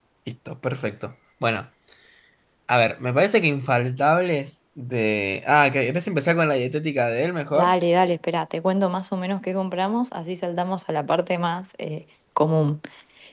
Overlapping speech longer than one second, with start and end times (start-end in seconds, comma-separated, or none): none